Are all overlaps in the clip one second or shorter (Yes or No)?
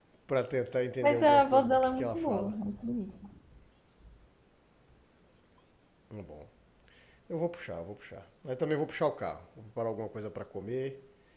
No